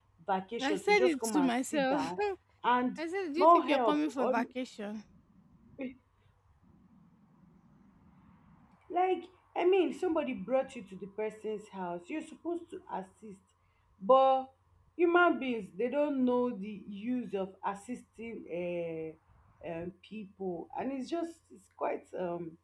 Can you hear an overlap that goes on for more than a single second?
Yes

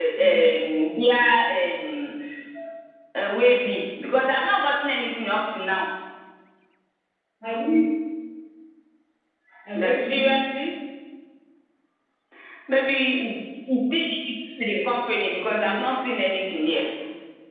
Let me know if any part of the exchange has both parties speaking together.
Yes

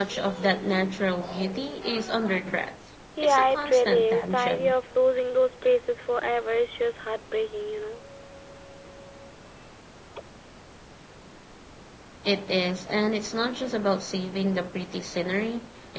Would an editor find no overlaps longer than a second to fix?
No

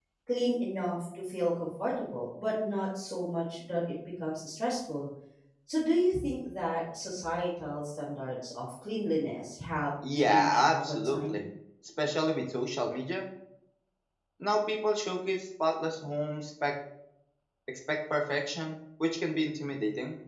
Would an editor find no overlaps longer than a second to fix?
No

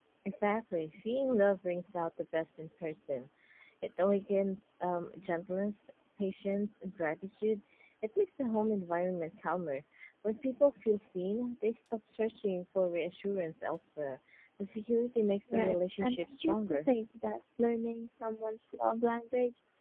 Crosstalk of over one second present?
Yes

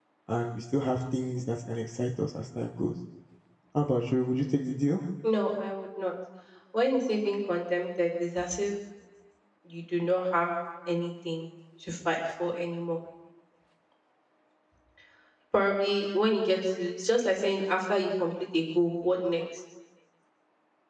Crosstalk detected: No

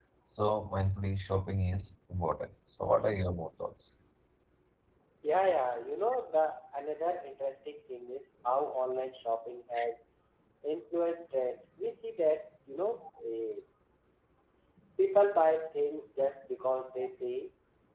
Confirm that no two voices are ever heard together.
Yes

